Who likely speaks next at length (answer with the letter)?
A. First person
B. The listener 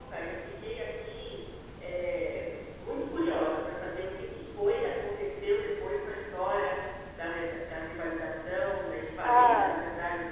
A